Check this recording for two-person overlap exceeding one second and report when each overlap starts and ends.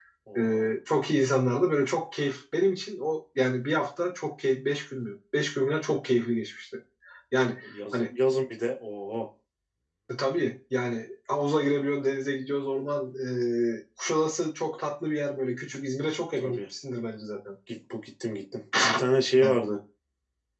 none

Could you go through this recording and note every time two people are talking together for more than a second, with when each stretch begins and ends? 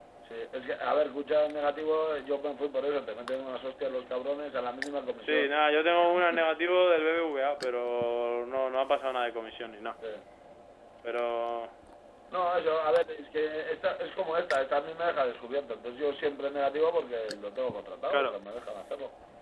none

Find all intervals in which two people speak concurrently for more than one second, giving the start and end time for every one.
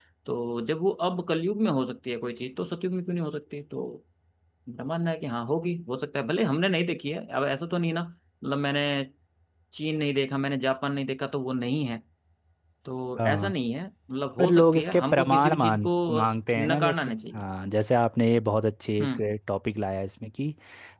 14.4-17.4

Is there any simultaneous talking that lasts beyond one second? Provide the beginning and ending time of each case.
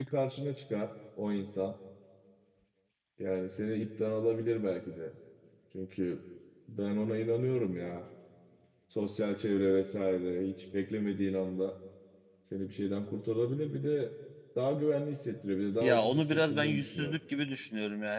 15.8-17.2

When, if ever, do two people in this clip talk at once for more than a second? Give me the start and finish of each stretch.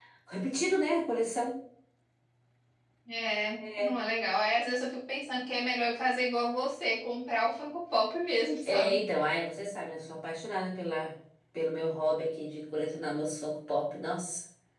none

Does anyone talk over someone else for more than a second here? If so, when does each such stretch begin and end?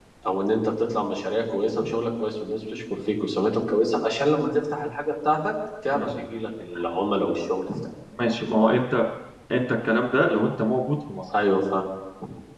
none

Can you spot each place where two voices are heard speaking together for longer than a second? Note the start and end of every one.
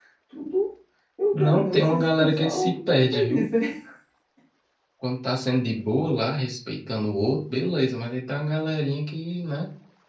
1.3-3.5

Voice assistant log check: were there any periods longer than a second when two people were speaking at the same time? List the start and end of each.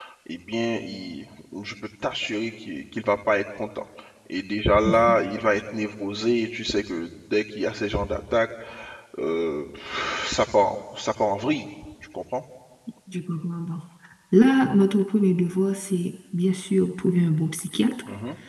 none

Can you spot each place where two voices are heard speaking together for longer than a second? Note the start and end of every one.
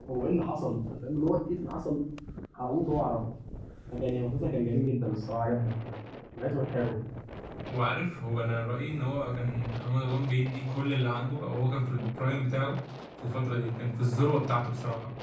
none

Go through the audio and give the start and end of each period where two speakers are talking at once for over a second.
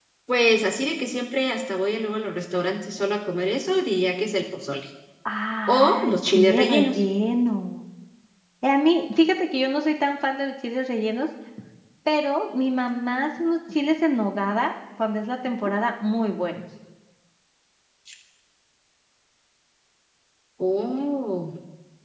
5.7-7.0

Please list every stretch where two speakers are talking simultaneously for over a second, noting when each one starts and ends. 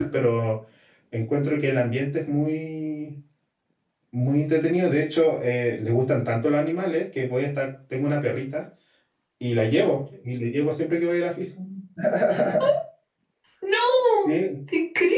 none

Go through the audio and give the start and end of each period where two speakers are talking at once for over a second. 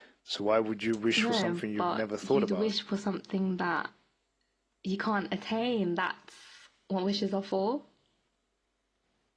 1.2-2.7

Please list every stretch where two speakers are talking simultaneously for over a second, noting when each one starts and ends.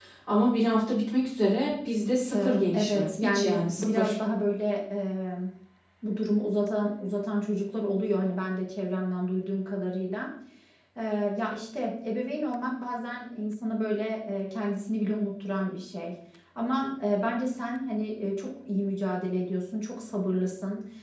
2.3-4.2

